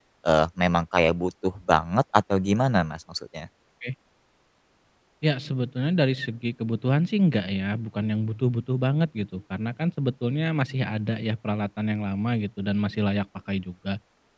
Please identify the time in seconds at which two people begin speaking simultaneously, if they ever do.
none

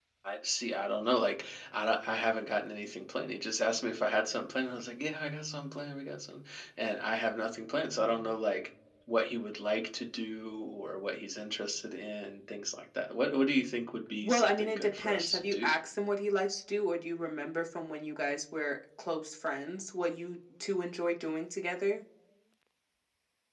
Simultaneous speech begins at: 14 s

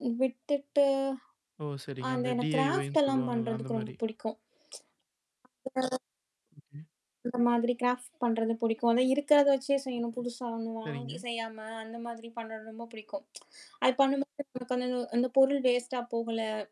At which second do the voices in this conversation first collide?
2 s

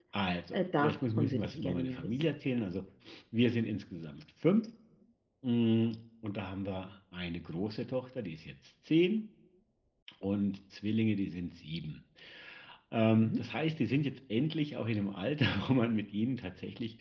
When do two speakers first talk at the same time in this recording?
1 s

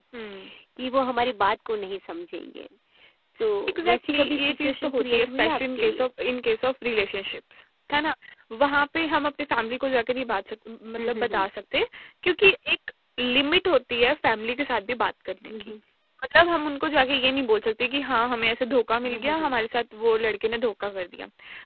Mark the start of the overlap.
4 s

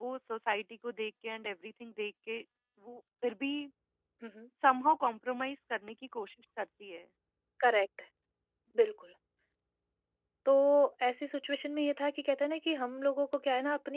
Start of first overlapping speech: none

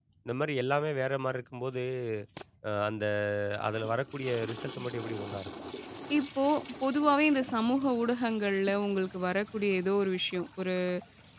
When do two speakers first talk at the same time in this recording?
none

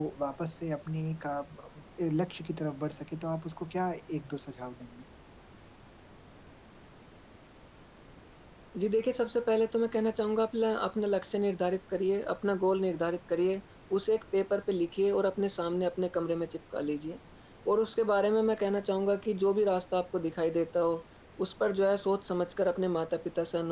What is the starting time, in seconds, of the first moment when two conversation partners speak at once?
none

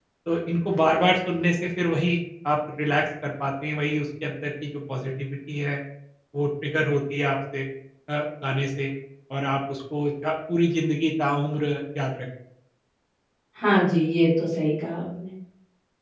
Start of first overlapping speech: none

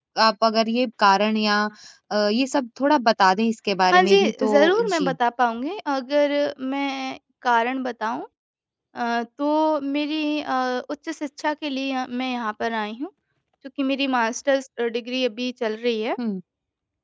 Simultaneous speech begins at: 4 s

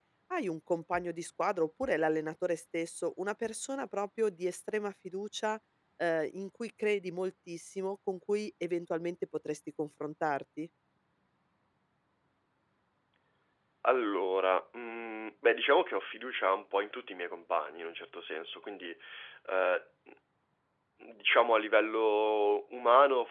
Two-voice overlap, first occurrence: none

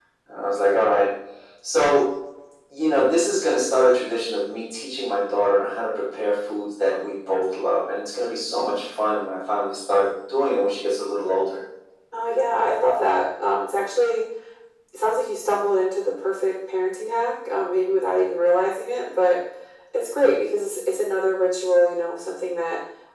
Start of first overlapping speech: none

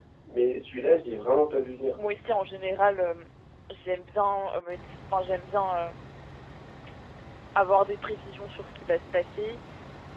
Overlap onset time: none

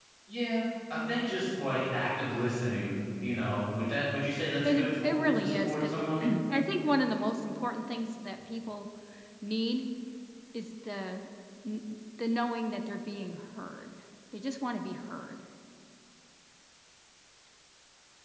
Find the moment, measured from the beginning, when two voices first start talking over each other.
5 s

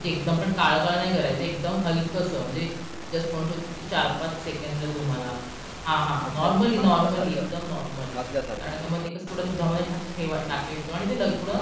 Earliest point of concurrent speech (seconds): 6 s

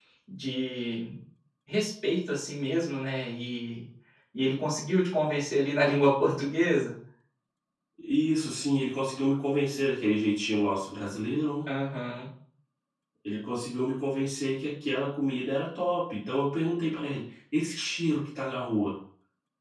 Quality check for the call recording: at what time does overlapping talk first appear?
none

